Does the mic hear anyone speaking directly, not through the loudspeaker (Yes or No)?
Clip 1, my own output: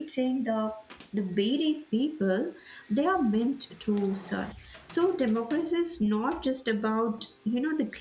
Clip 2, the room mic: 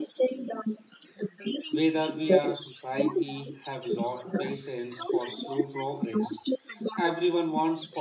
Yes